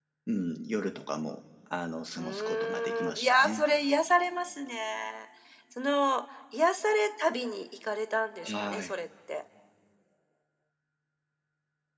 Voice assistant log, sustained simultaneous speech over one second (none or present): present